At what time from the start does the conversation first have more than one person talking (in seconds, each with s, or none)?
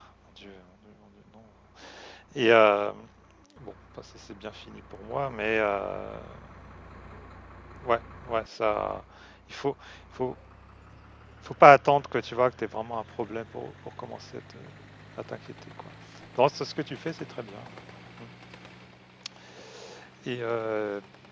none